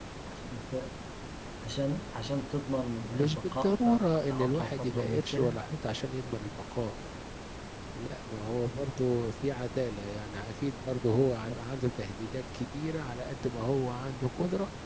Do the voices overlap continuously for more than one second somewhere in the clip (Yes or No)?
Yes